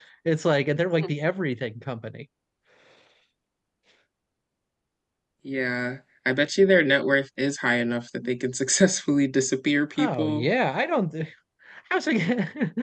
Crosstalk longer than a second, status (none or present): none